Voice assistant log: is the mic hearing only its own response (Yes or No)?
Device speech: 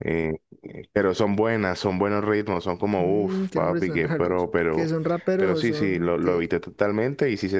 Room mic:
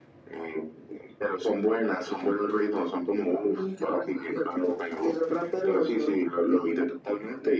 Yes